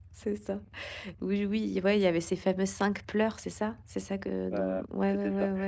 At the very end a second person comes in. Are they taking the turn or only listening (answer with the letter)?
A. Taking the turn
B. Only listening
A